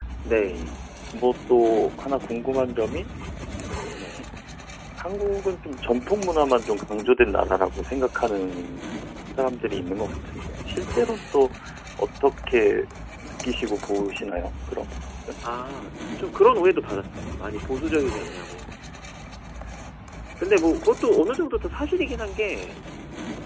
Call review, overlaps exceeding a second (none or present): none